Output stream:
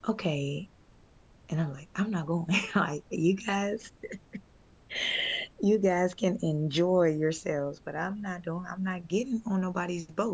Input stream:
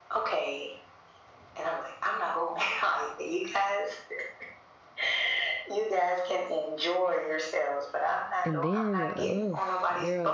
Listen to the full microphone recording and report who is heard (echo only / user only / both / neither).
both